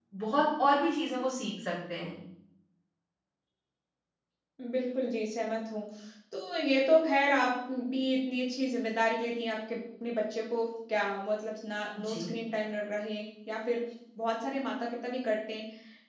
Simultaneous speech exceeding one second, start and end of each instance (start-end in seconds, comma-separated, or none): none